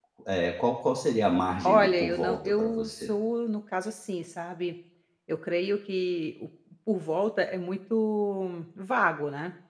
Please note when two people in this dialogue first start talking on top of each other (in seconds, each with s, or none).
1.6 s